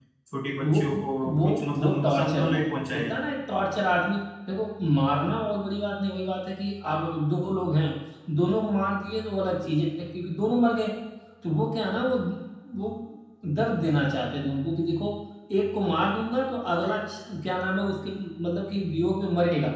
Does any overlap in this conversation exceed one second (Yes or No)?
Yes